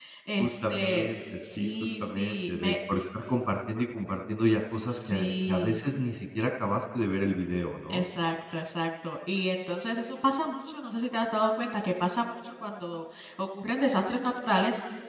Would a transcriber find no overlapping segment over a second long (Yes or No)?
No